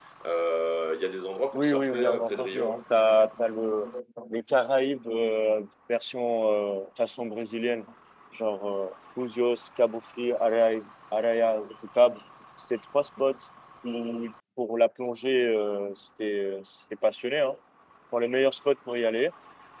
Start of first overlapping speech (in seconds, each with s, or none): 1.5 s